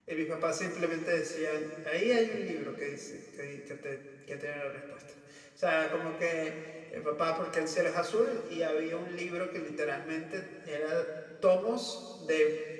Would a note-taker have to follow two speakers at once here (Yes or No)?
No